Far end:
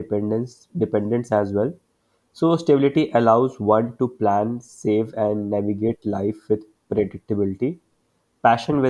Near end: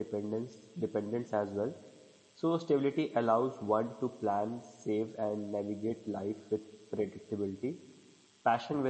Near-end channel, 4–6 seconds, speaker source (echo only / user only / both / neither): echo only